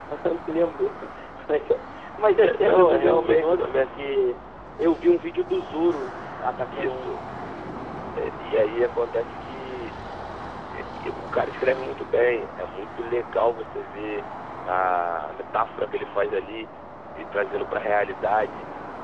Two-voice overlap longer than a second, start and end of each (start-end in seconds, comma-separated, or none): 2.4-4.3